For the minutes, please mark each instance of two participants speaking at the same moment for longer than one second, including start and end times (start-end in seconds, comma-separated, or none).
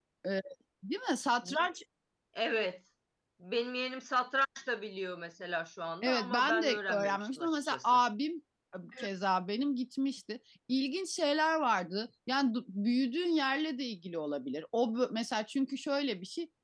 6.0-8.0